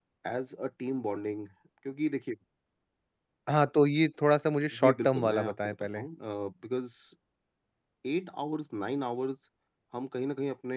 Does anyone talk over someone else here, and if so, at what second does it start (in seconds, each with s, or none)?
4.7 s